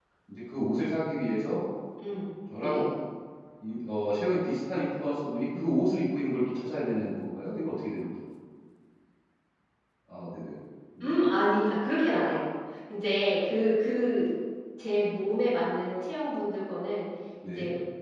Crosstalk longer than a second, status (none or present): none